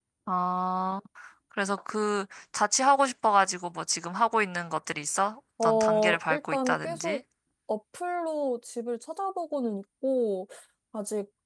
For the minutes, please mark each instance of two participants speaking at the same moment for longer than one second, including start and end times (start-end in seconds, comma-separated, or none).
5.6-7.2